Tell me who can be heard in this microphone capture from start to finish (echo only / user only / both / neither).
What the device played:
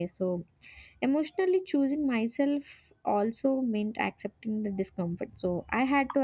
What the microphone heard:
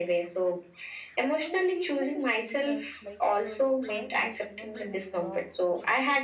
both